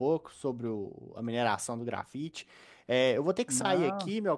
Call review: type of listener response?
listening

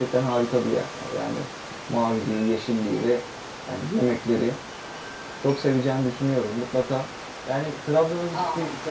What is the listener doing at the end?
listening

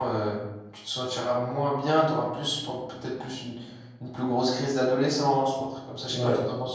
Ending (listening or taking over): taking over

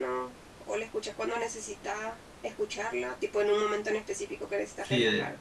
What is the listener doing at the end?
taking over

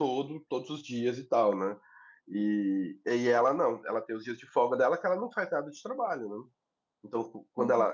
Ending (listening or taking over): listening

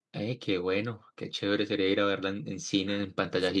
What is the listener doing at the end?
taking over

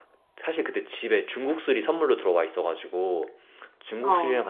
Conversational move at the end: listening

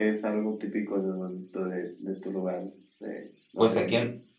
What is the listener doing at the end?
taking over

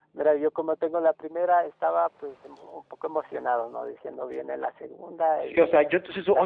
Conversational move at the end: taking over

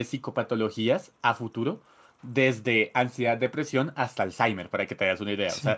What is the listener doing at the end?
taking over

